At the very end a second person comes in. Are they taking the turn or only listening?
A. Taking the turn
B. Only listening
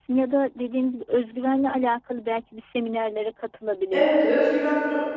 A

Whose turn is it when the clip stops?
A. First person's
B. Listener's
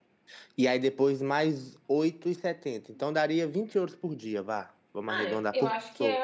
B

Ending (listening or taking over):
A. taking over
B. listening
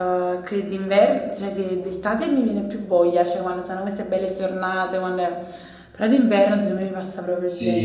A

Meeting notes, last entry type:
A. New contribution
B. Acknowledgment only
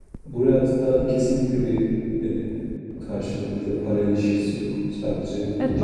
A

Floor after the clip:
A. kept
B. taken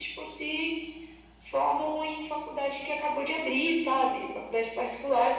A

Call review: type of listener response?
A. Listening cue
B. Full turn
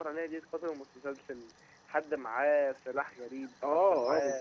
B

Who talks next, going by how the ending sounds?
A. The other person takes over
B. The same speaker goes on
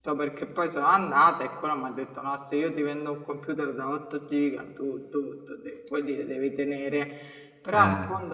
B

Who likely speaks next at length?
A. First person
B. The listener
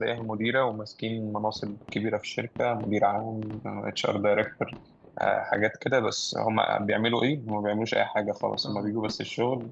A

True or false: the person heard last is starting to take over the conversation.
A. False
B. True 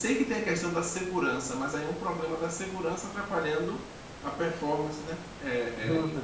A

